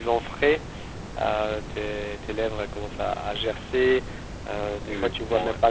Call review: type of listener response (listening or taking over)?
listening